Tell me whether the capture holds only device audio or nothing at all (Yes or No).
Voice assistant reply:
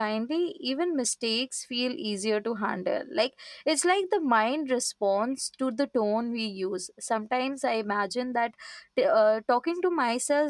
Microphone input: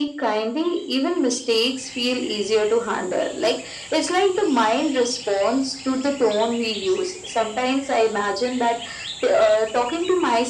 Yes